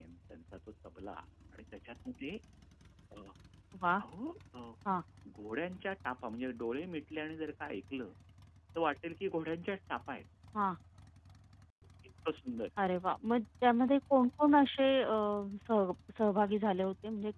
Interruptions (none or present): none